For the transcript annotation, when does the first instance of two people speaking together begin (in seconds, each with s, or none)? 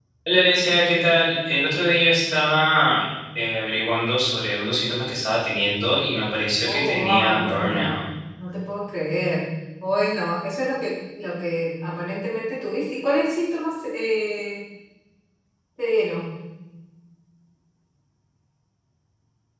6.7 s